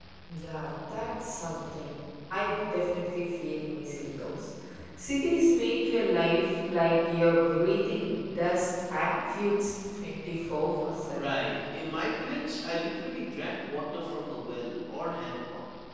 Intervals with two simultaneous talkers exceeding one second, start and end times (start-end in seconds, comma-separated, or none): none